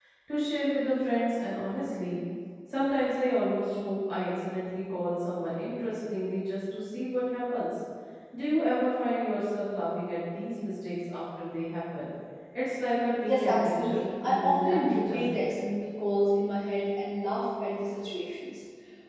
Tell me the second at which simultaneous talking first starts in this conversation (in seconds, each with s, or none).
13.2 s